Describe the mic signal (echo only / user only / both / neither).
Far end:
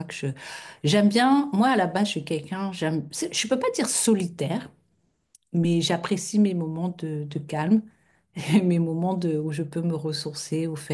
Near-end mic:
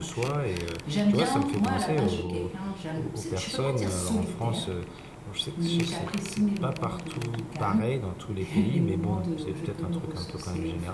both